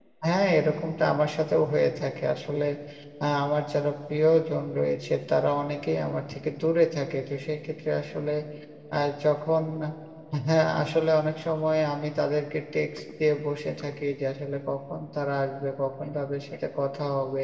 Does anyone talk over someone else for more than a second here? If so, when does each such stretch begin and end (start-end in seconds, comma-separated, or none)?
none